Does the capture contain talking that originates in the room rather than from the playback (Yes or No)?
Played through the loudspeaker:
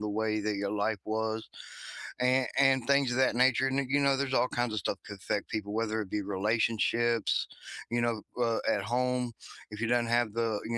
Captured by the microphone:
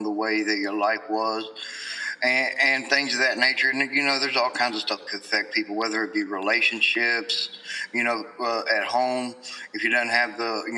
No